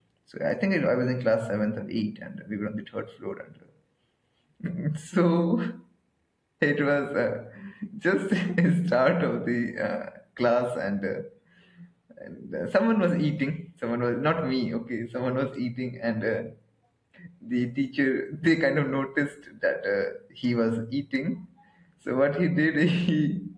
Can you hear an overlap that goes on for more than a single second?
No

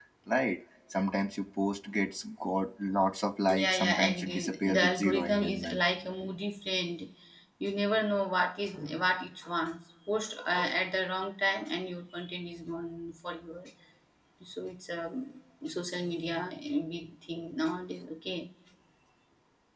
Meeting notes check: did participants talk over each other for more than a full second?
Yes, from 3.5 s

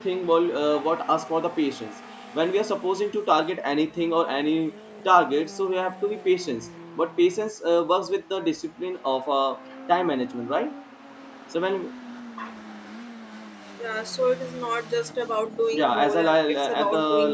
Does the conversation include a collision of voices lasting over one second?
Yes, from 15.7 s

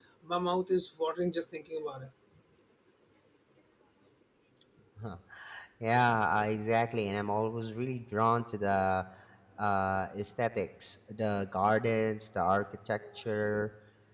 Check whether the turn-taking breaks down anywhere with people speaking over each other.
No

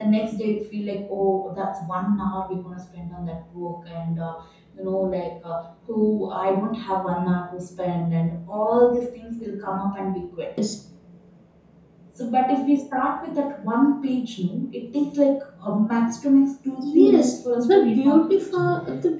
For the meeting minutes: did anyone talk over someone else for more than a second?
Yes, from 16.8 s

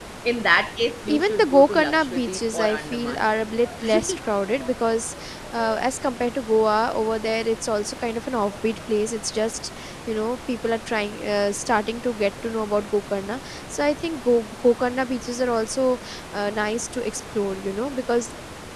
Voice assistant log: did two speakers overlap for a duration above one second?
Yes, from 1.1 s

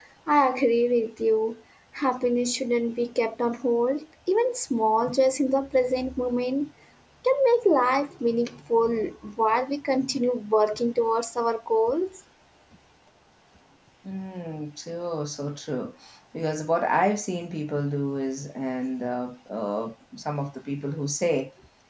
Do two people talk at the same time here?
No

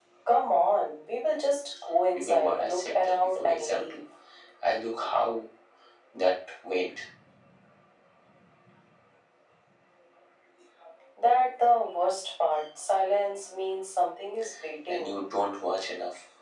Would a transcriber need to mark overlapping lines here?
Yes, from 2.1 s

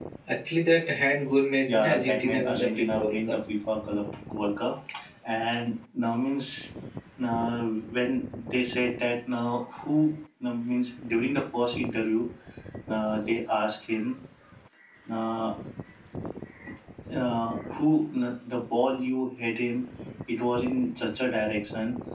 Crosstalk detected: Yes, from 1.6 s

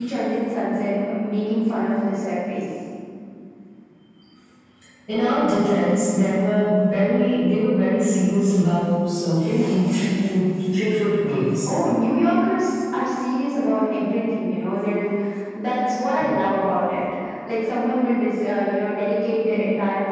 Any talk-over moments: No

